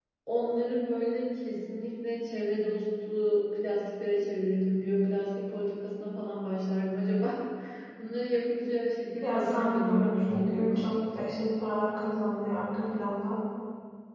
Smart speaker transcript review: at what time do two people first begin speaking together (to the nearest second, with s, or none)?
9 s